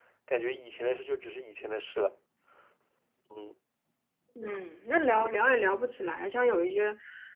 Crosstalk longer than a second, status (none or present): none